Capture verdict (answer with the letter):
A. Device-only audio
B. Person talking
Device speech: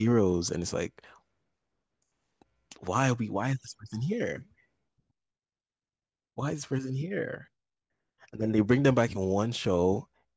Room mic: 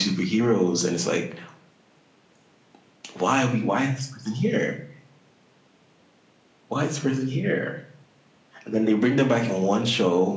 A